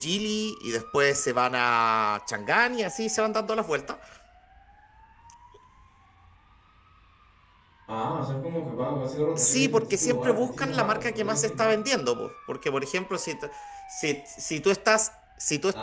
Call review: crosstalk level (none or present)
present